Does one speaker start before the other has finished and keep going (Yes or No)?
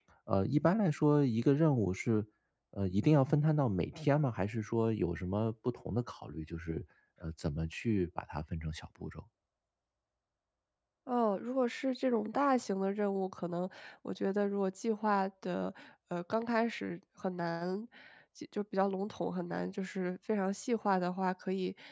No